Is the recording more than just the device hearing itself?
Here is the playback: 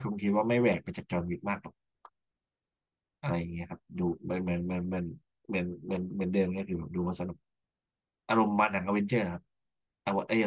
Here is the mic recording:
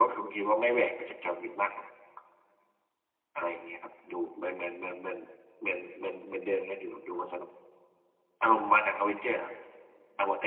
No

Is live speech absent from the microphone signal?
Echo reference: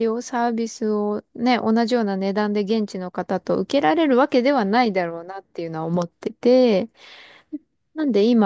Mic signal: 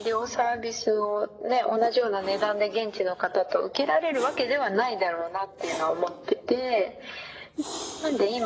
Yes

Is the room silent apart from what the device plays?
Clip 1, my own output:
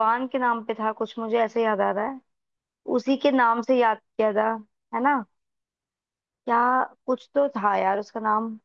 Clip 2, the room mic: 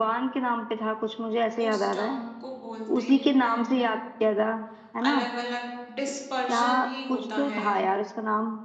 No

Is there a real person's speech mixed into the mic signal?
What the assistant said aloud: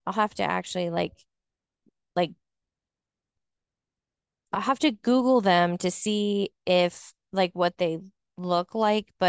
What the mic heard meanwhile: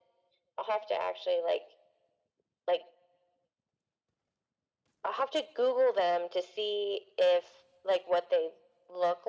No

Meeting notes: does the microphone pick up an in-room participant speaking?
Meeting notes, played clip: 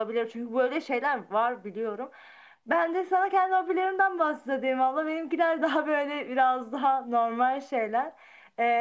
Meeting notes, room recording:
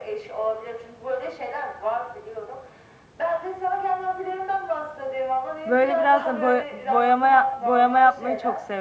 Yes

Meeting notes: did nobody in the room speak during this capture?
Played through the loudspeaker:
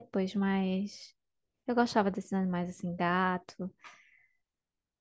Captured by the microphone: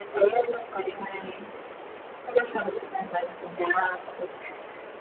Yes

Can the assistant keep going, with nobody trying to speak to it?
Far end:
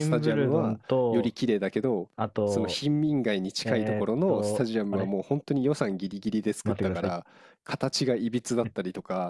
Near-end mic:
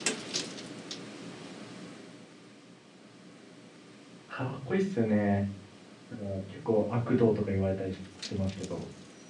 No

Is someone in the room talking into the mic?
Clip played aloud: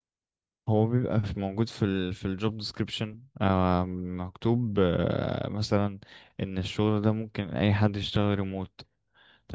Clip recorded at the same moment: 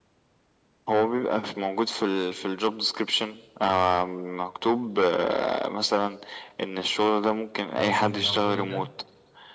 Yes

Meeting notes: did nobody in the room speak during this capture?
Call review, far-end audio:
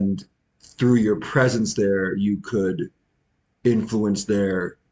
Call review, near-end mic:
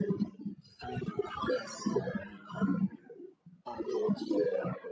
Yes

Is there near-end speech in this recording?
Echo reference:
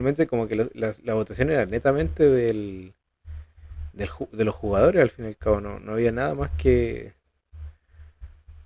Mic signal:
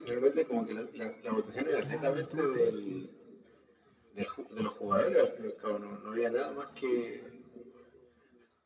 Yes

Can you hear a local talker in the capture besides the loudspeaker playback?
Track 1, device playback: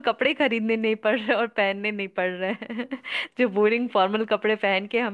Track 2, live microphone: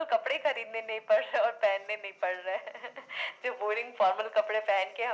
No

